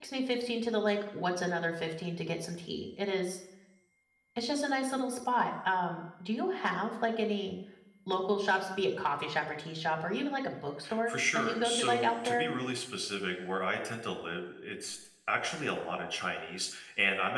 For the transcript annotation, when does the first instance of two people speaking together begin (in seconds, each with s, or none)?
10.8 s